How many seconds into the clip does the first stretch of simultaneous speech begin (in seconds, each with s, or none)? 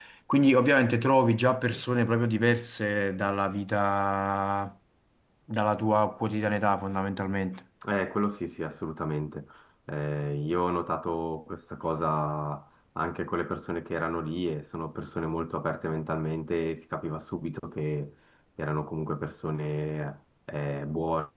none